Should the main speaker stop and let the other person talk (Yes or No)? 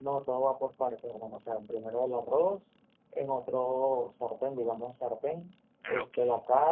No